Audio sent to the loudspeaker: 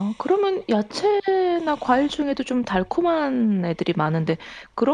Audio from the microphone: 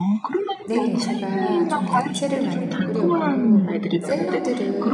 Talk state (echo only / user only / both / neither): both